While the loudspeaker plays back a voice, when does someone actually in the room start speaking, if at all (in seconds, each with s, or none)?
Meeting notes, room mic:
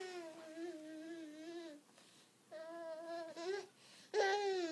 none